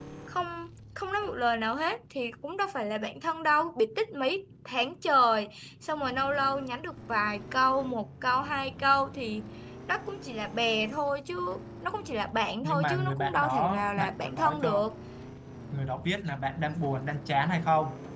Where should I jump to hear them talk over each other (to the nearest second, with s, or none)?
13 s